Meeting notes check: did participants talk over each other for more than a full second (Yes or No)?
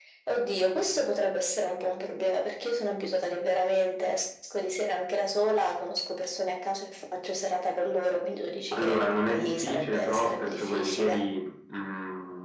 Yes